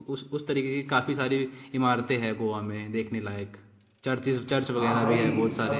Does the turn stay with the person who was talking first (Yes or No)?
No